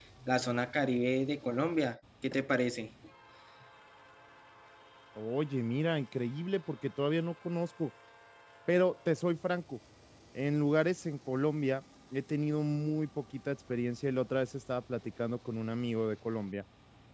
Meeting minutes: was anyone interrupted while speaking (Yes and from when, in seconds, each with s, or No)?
No